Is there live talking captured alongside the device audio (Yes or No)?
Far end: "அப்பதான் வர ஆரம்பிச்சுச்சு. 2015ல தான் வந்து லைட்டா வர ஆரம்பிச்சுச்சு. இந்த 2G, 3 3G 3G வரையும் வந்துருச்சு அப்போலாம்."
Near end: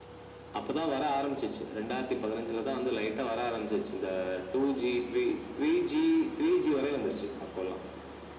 No